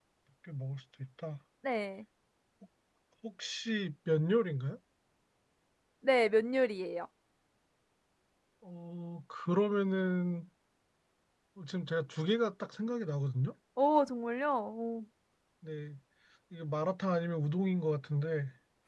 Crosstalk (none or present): none